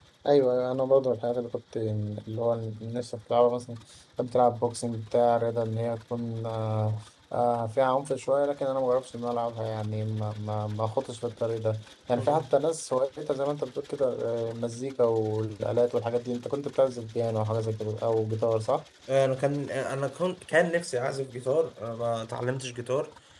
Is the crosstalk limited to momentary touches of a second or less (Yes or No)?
Yes